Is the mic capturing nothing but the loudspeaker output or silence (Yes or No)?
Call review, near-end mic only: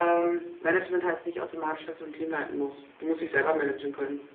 Yes